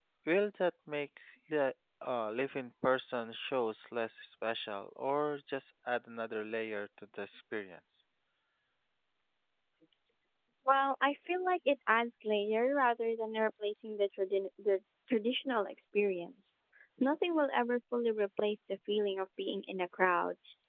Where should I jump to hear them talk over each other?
none

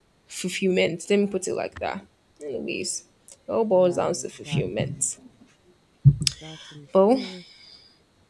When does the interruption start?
3.7 s

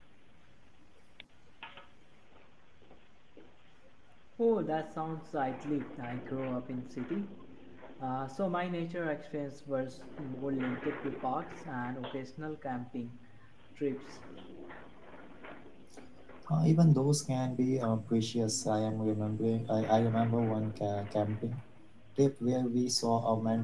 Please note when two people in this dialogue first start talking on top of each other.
none

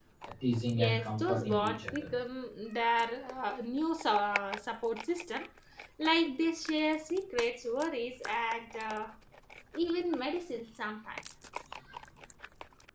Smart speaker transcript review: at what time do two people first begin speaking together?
0.8 s

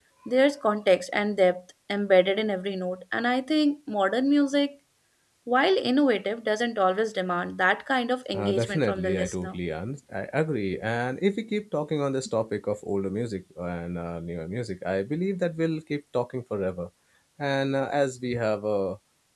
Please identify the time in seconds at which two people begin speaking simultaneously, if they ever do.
8.3 s

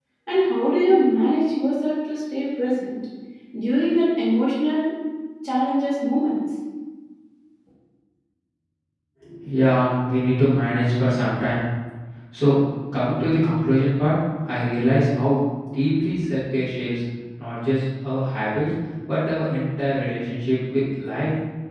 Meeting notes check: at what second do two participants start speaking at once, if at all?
none

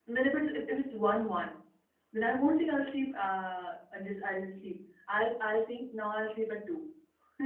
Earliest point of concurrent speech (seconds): none

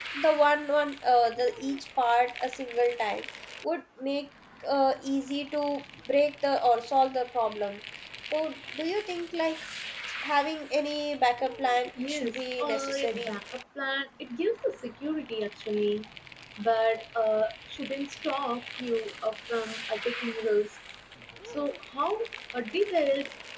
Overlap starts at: 12.0 s

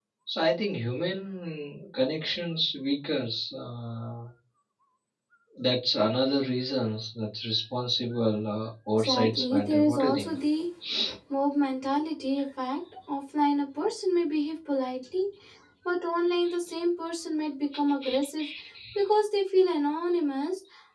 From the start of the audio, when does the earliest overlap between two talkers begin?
9.0 s

